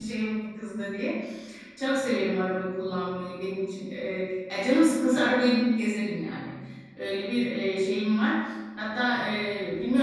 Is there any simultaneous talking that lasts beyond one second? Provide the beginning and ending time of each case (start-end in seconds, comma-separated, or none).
none